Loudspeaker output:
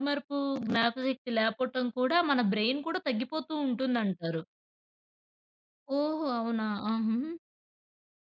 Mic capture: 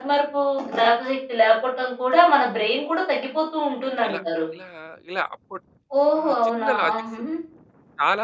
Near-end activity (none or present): present